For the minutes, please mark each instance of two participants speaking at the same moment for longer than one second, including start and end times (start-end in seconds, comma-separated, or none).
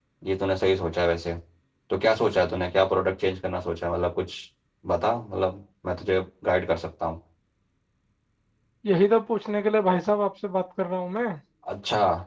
none